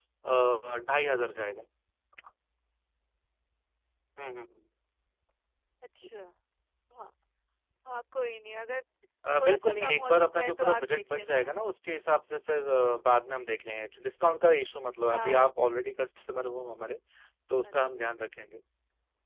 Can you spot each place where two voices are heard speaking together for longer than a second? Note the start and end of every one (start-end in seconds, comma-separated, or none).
9.4-11.4